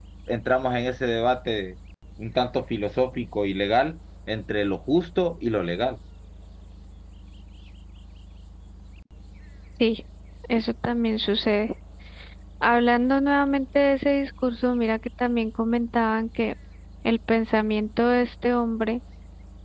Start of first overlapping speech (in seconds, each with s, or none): none